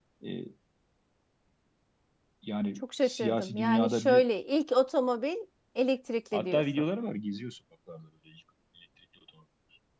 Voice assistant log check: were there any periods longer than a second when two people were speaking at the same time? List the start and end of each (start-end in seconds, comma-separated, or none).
2.8-4.2